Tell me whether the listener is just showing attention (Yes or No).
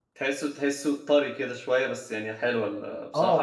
No